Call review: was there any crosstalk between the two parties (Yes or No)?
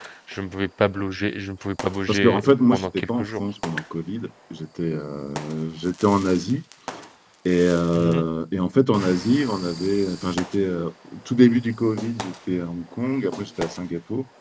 Yes